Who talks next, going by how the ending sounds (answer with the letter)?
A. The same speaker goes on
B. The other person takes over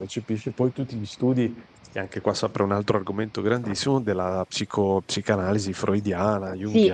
B